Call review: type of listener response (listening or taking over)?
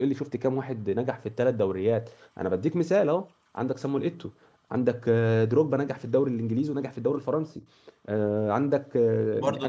taking over